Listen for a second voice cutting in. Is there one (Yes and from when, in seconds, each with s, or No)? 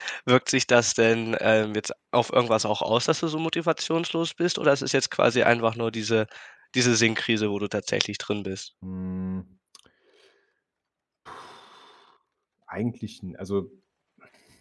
No